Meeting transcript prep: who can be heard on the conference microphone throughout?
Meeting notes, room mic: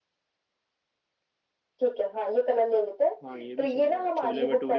both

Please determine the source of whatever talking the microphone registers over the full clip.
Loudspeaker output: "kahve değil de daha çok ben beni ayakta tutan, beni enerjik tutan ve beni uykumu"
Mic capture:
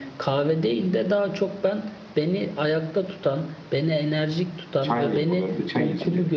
both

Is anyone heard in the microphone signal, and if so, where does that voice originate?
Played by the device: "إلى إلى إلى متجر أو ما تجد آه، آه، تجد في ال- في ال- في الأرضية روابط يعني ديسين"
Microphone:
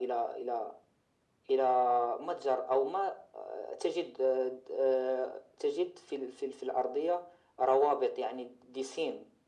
echo only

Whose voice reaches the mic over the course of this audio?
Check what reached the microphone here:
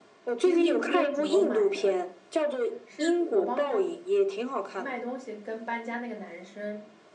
both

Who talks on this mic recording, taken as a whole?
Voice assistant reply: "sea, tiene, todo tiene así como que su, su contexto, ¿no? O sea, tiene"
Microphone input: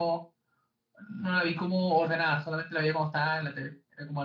user only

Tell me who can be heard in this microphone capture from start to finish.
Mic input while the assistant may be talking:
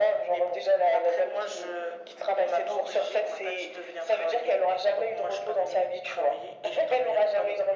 echo only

